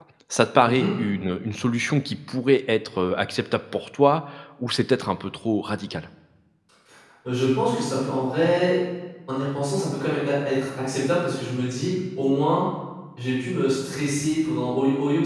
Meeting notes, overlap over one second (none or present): none